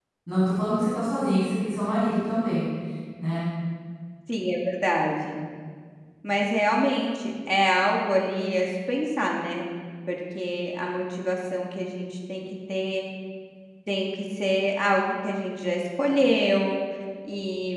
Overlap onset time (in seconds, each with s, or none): none